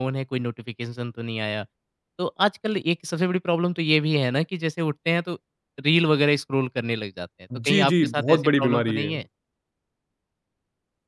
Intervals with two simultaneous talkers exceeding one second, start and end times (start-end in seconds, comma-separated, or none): 7.6-9.1